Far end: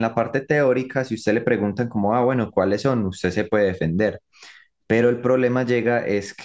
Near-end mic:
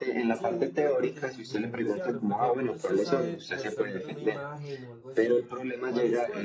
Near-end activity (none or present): present